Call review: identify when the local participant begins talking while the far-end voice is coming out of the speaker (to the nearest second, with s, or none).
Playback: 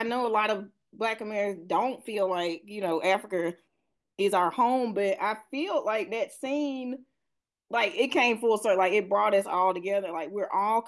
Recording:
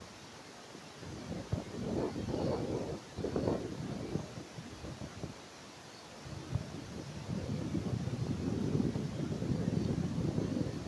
none